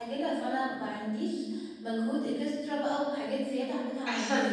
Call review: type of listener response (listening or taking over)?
taking over